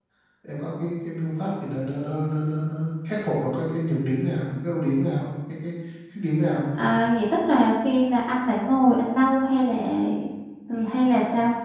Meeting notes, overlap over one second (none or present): none